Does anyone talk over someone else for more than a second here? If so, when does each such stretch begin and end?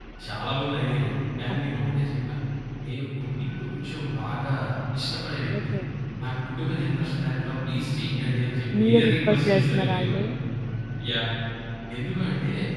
8.8-10.2

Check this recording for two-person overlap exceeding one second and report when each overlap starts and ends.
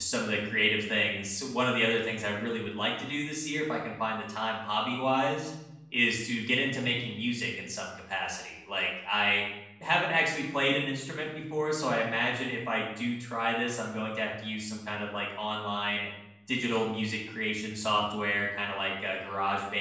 none

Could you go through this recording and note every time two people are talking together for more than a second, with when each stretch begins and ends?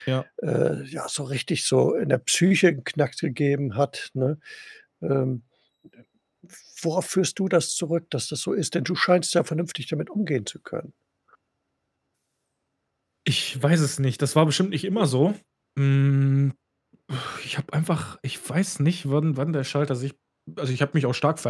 none

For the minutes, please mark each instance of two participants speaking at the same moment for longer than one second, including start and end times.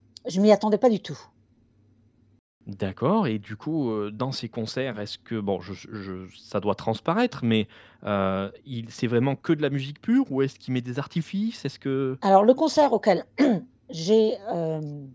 none

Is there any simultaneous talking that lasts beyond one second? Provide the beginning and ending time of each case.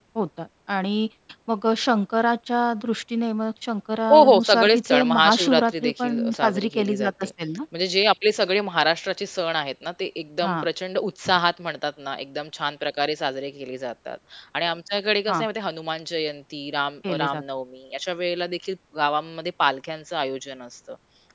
4.1-7.2

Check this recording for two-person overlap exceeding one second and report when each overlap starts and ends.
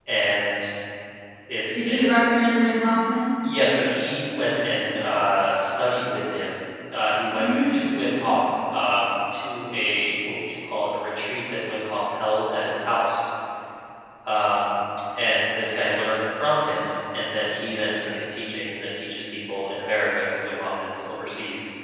none

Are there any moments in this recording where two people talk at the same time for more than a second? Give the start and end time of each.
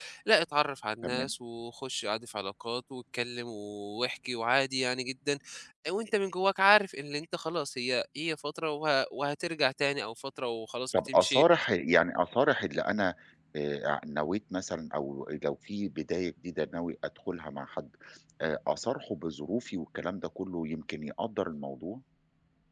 none

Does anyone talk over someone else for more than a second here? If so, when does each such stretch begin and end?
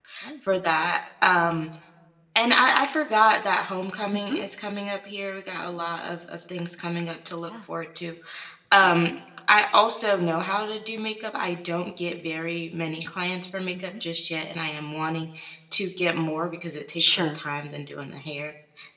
none

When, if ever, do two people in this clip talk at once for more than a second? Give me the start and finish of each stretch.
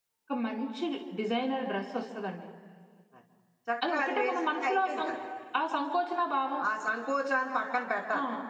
3.9-5.1

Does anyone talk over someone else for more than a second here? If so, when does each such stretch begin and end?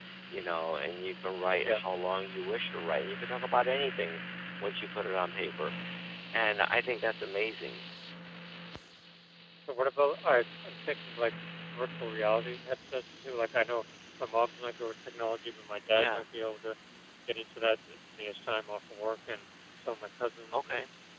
none

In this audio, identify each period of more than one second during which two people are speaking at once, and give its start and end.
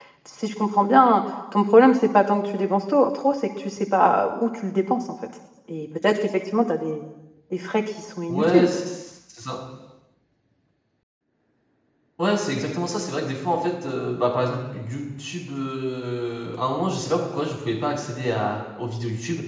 none

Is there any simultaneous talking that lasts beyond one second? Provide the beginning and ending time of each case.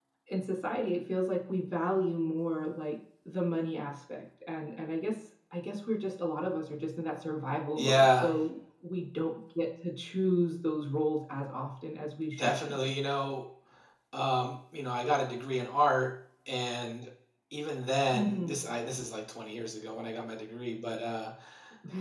none

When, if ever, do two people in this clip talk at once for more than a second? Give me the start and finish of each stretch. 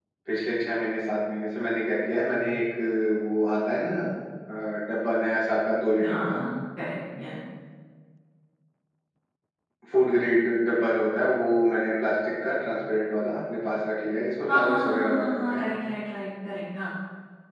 14.5-15.7

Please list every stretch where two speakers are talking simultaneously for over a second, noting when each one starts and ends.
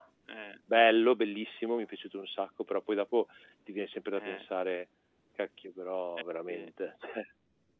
none

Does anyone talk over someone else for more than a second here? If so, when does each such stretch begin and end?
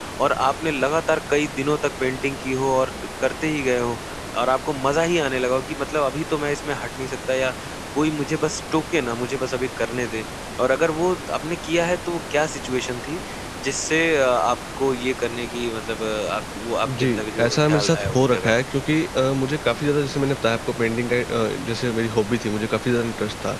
16.9-18.6

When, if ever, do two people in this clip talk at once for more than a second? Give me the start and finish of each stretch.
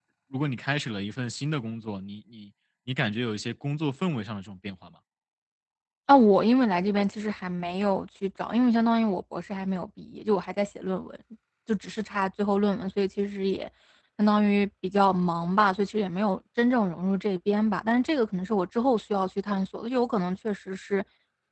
none

